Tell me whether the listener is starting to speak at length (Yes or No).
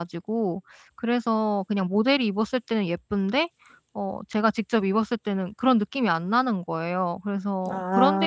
No